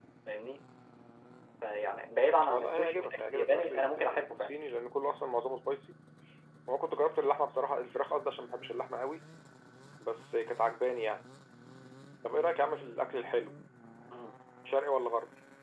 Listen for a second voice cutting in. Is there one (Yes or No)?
Yes